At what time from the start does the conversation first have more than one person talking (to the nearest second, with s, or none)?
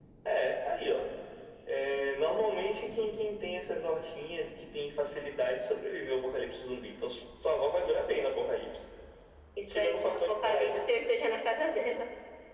10 s